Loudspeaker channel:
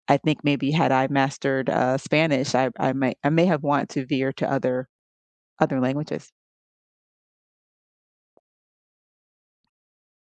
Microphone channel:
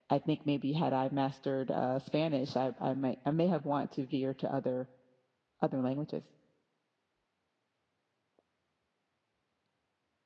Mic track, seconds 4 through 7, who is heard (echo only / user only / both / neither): echo only